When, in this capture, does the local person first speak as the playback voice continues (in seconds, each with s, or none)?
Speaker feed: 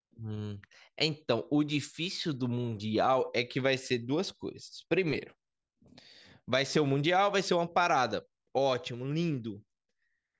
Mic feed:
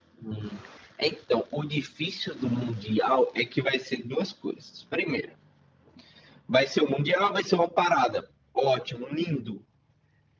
none